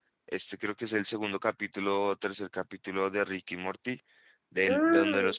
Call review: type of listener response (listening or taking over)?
listening